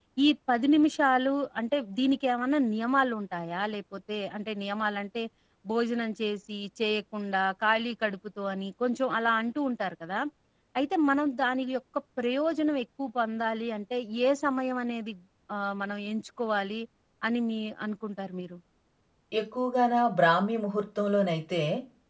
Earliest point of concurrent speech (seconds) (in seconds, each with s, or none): none